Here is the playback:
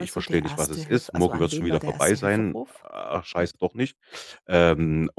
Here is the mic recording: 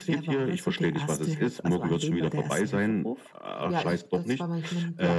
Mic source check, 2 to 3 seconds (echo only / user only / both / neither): echo only